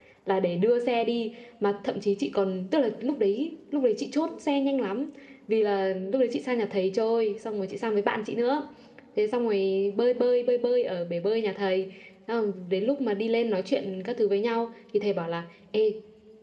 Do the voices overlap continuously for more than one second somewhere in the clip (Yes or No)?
No